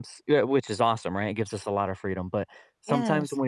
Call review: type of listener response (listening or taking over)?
listening